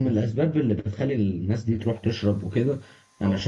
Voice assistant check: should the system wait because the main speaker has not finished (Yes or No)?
Yes